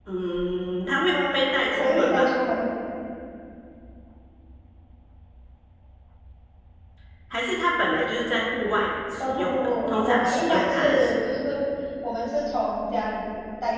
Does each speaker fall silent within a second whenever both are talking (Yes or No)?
No